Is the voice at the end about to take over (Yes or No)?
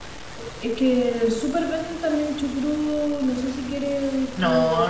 Yes